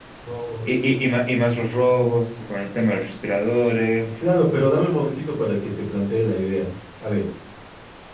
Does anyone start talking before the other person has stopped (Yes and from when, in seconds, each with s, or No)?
No